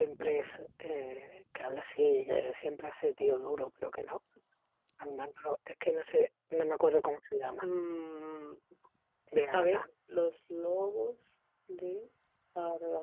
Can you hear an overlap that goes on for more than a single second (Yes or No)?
No